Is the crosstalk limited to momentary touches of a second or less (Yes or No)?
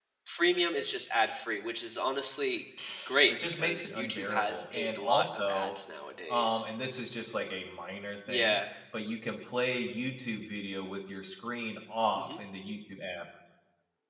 No